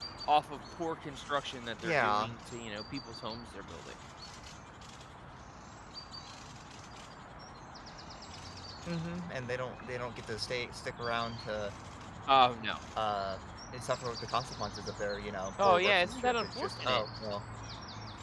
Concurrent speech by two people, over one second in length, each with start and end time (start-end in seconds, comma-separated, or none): 15.6-17.0